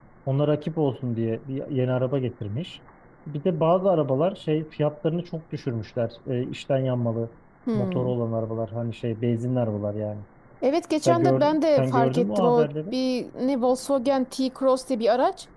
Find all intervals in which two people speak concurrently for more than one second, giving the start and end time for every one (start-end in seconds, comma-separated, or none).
11.1-12.7